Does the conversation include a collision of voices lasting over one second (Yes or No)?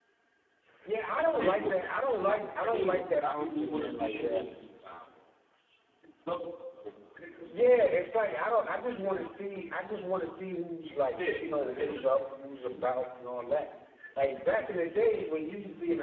Yes